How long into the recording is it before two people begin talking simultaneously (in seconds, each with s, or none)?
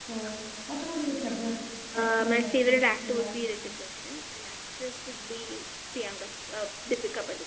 1.9 s